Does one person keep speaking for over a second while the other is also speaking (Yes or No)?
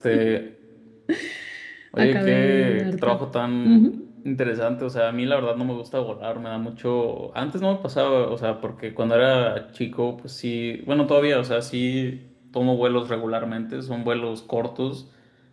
Yes